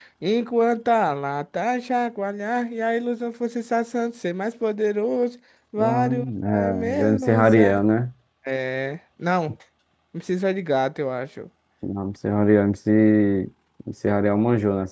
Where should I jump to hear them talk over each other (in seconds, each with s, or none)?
5.8 s